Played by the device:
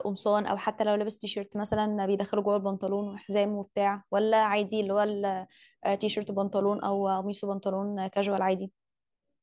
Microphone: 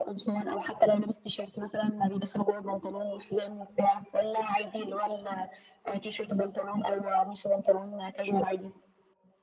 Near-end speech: none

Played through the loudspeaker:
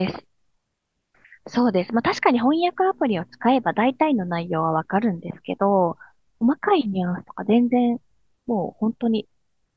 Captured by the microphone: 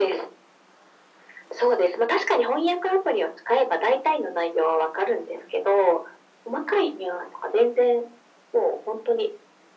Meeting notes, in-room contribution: none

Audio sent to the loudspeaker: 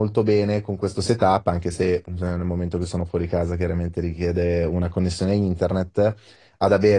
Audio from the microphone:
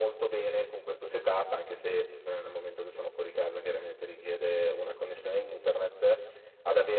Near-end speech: none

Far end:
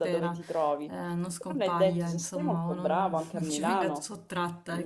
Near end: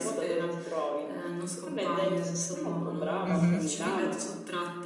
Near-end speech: present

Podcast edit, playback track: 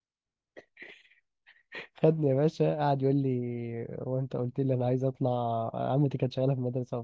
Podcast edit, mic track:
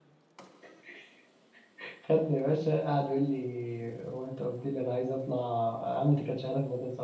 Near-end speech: none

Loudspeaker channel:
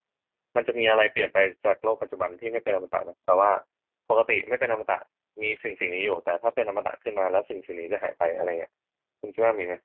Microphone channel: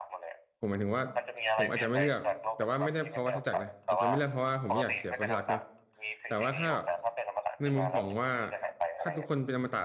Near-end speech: present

